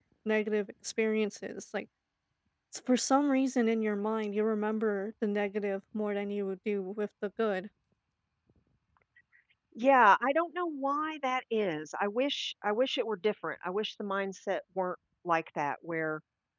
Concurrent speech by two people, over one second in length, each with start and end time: none

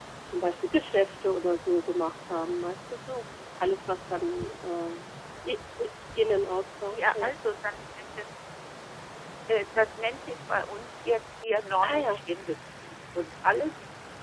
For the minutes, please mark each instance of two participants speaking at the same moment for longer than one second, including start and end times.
none

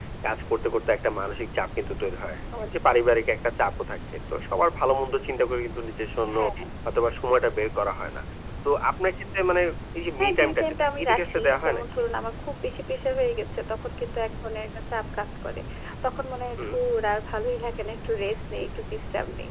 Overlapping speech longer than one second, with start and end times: 10.2-11.8

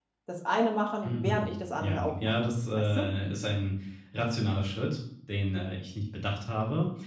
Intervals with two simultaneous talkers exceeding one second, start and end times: 1.0-3.1

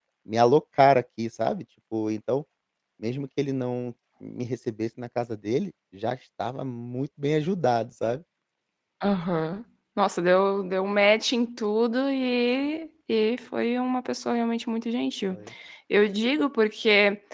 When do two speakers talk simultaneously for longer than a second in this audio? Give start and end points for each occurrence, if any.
none

